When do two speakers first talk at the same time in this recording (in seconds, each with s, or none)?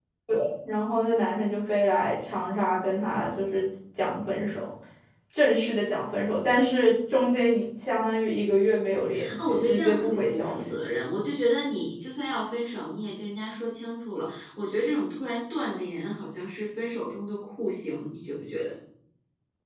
9.1 s